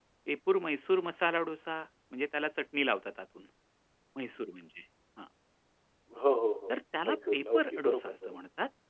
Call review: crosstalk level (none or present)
present